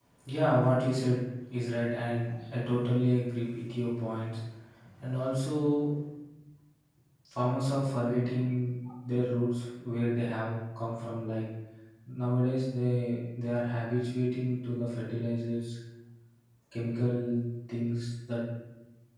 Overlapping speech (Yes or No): No